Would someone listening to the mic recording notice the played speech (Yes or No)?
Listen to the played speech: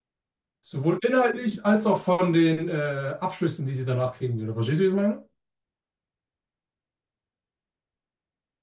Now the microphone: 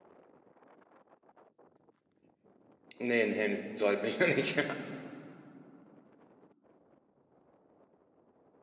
No